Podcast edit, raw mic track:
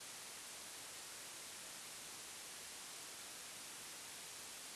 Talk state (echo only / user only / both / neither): neither